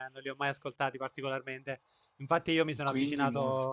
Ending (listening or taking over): listening